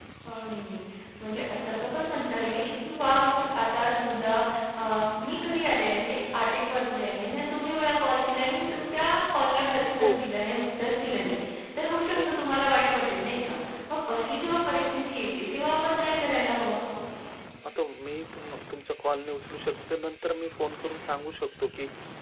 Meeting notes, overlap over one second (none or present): none